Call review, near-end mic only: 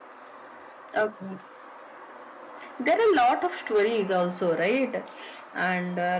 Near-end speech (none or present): none